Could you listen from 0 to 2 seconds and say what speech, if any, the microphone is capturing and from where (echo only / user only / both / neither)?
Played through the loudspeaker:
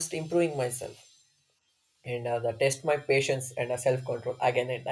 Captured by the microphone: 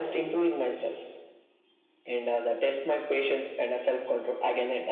echo only